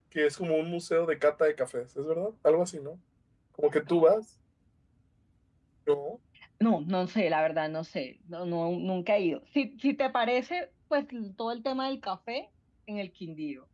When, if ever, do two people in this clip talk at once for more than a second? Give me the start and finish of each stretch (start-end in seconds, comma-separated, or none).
none